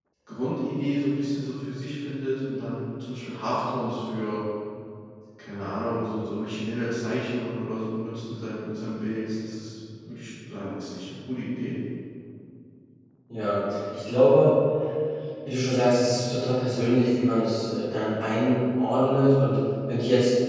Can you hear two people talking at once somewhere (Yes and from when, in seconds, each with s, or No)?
No